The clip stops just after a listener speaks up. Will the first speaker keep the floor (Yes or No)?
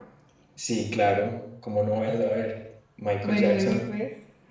No